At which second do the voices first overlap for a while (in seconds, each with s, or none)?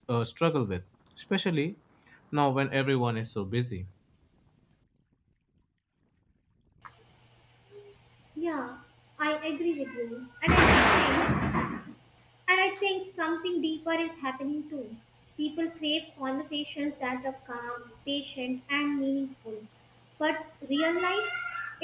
none